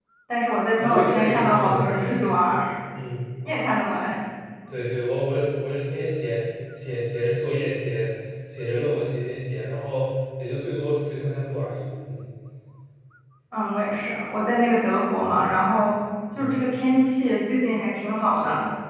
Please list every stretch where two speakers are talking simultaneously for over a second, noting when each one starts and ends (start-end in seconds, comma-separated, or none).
0.8-2.1